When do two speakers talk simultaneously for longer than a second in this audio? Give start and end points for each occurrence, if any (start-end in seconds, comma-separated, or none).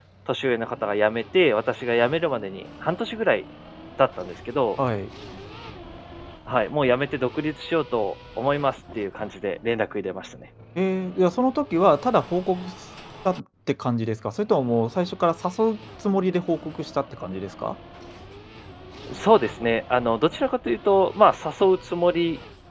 none